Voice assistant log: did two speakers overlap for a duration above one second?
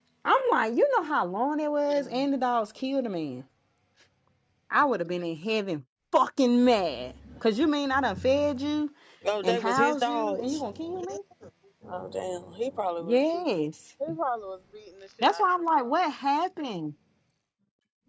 Yes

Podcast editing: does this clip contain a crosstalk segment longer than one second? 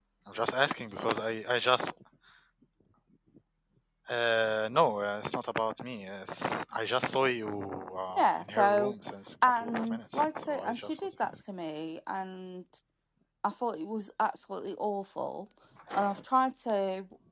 Yes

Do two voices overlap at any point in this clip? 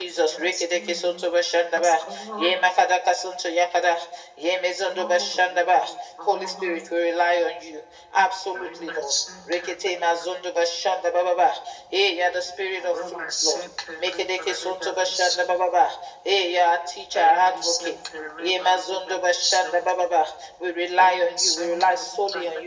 Yes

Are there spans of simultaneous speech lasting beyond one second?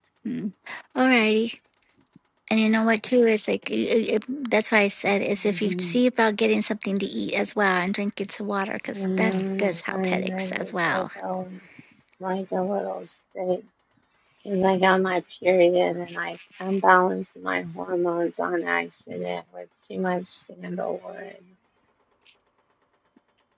Yes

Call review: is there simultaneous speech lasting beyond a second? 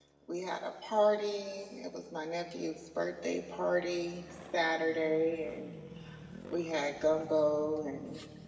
No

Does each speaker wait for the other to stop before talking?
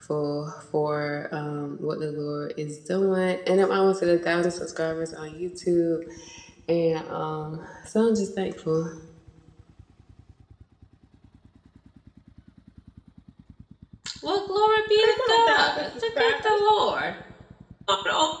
No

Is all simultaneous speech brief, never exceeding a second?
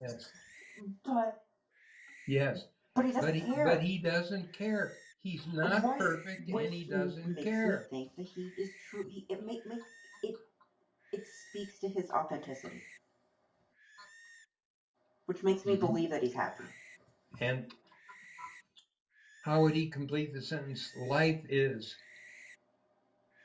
No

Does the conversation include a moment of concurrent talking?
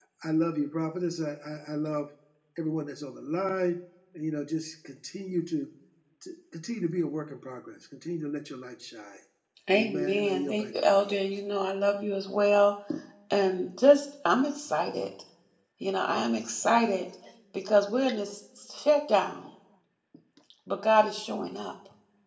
Yes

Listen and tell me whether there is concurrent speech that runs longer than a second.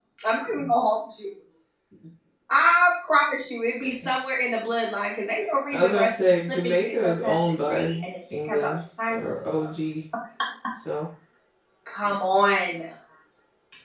Yes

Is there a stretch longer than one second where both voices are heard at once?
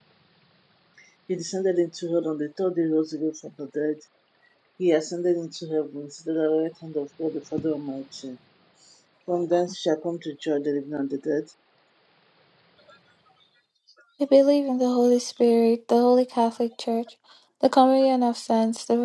No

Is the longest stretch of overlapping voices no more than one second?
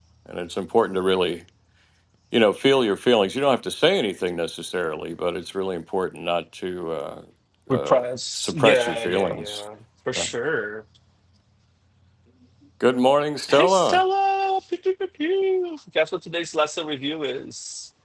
No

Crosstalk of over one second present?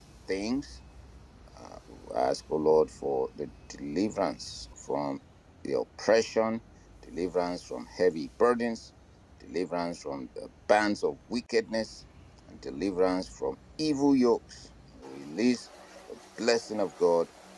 No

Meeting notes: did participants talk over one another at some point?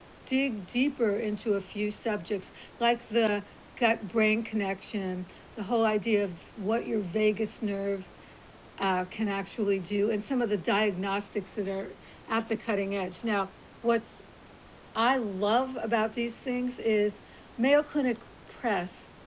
No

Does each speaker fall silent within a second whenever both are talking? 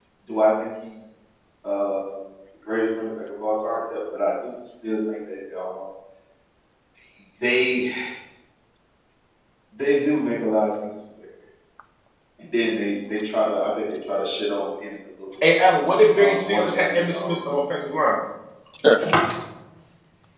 No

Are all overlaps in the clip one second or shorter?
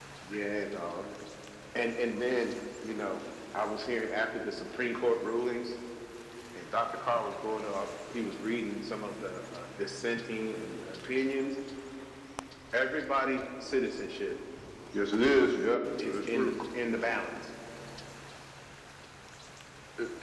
Yes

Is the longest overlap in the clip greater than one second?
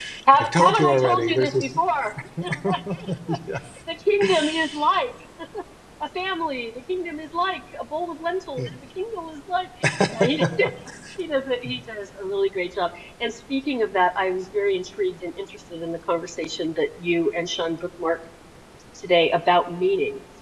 Yes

